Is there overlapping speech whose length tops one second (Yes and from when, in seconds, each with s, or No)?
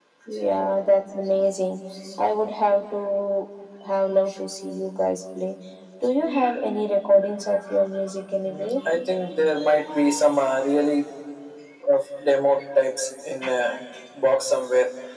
No